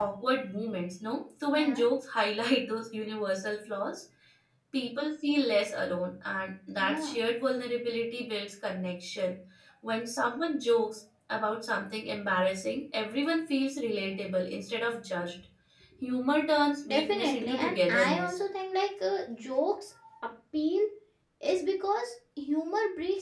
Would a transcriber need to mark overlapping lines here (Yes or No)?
Yes